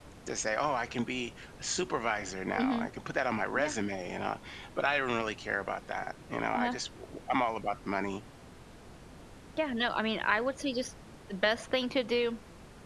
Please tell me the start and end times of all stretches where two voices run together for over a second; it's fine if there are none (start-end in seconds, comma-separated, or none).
none